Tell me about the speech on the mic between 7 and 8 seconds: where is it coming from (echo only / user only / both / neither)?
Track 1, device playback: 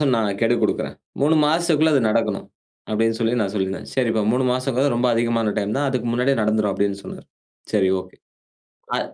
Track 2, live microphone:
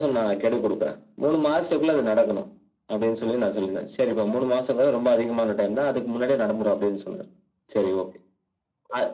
echo only